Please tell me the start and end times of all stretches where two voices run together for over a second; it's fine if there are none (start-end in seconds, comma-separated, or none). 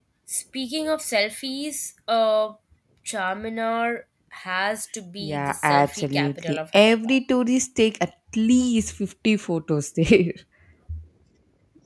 5.2-7.2